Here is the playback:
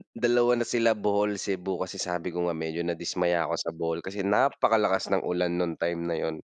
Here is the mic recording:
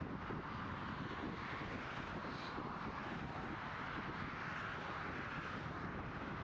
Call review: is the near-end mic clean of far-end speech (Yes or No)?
Yes